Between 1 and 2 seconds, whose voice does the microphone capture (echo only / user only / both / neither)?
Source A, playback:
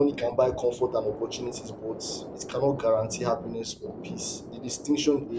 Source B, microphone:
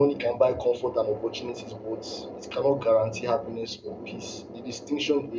echo only